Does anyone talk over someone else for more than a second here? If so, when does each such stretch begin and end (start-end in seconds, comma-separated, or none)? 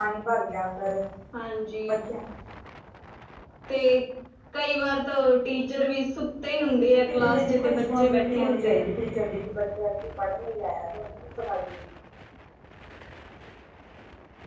6.5-8.8